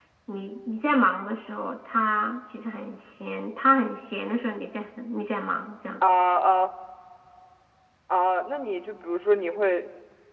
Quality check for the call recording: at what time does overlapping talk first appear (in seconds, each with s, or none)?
none